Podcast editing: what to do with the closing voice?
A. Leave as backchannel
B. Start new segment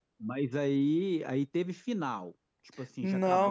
B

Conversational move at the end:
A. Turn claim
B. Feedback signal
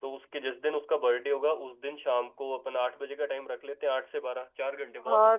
A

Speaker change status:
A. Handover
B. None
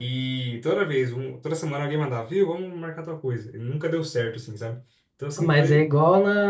A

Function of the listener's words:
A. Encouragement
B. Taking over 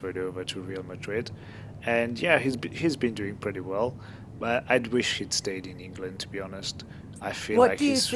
B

